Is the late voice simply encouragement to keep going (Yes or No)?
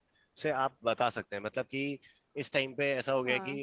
Yes